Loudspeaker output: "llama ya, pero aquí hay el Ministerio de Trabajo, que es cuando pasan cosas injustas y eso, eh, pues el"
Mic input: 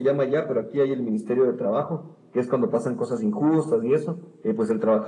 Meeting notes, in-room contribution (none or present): none